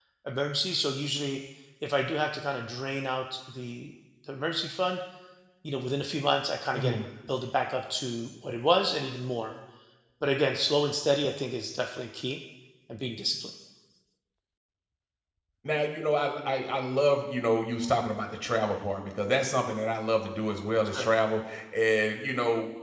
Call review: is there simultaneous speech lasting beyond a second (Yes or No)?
No